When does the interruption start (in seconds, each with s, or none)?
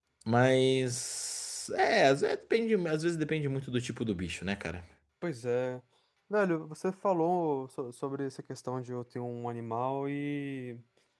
none